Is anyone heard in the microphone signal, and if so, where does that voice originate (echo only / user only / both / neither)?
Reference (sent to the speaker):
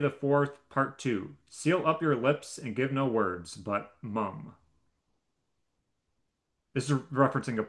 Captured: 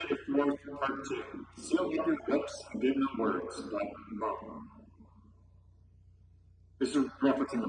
echo only